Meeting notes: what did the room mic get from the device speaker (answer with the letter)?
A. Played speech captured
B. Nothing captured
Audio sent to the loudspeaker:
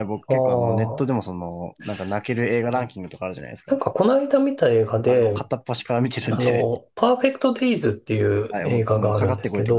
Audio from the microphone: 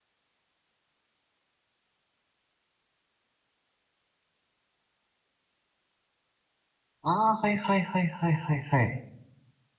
B